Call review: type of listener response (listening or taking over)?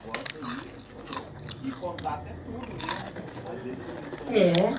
listening